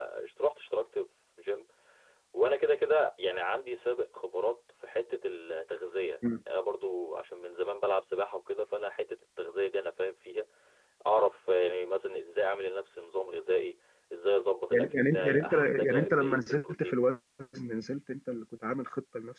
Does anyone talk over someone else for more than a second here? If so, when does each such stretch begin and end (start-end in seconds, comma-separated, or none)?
14.7-17.0